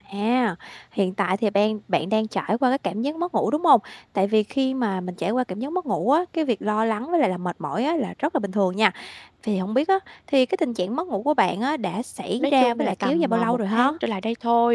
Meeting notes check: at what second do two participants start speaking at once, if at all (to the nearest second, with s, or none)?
12 s